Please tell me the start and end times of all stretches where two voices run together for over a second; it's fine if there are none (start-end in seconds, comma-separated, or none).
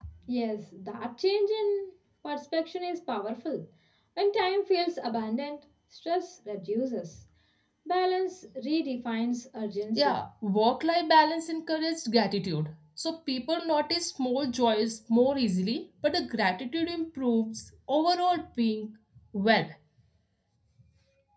none